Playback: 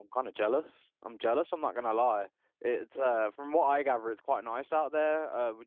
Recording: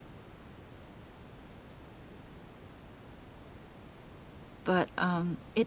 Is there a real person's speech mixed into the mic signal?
Yes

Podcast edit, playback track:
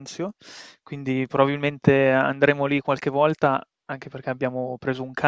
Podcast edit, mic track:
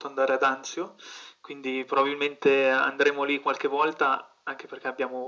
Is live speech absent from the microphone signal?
Yes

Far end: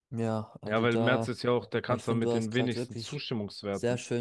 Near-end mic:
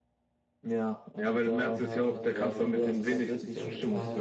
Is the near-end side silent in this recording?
No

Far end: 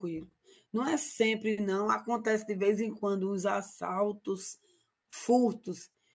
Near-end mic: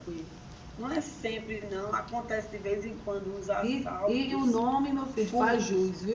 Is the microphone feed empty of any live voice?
No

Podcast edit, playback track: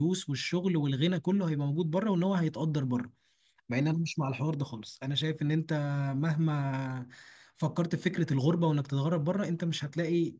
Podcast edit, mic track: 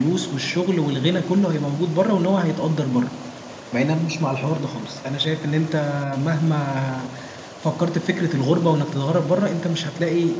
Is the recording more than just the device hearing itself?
No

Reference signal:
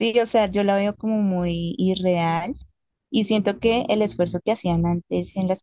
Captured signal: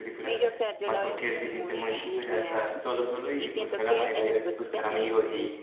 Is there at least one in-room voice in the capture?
Yes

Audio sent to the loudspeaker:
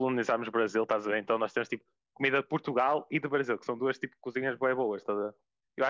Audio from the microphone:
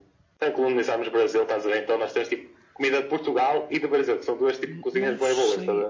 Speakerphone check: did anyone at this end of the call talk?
Yes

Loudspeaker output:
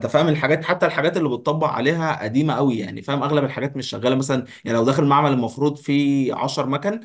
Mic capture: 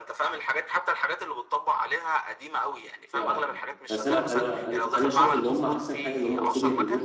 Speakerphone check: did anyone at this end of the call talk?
Yes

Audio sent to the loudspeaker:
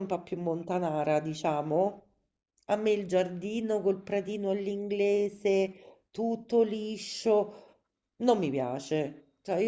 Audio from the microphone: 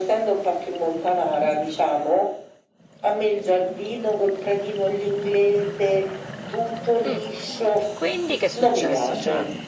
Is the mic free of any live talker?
No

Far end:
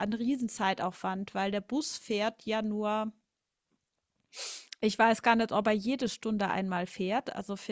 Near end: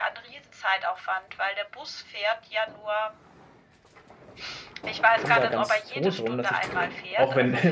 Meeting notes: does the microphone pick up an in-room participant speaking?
Yes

